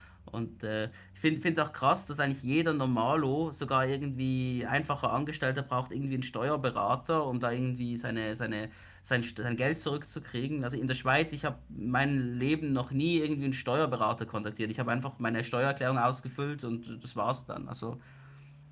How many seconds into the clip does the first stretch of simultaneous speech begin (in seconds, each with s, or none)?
none